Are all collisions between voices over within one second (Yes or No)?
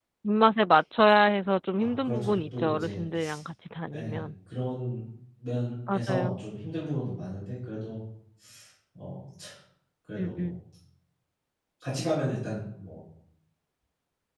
No